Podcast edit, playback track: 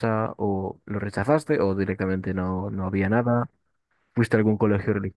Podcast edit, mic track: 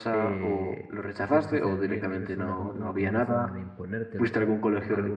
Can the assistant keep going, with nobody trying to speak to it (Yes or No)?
No